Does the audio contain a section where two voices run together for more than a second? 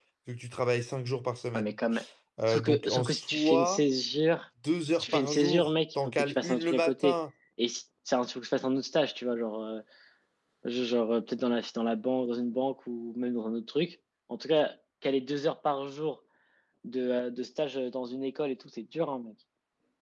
Yes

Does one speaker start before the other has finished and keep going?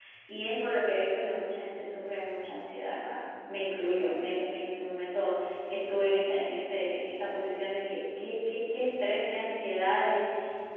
No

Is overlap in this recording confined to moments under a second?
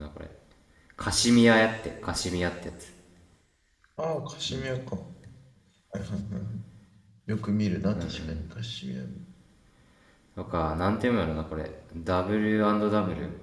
Yes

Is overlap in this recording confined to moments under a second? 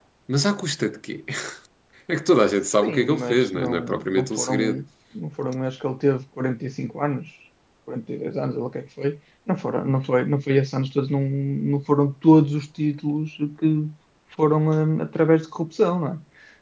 No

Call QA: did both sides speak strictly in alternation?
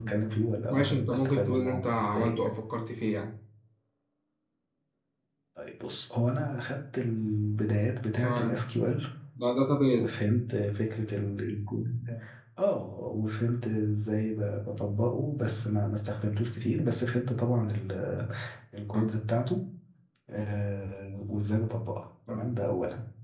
No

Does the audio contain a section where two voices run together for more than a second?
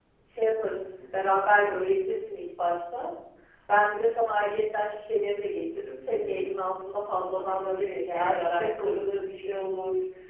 Yes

